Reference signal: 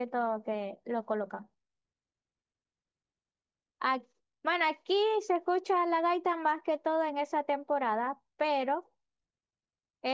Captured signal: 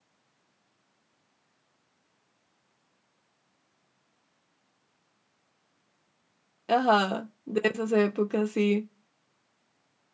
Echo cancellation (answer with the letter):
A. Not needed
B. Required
A